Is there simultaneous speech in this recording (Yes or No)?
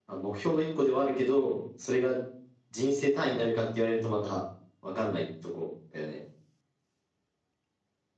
No